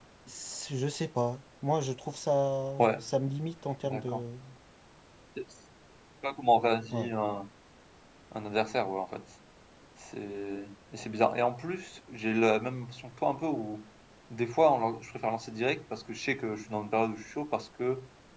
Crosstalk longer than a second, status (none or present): none